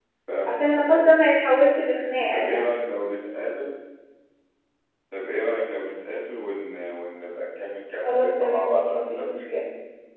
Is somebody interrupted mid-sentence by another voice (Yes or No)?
Yes